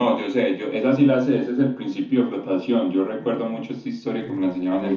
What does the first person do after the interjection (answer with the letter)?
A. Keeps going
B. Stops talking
A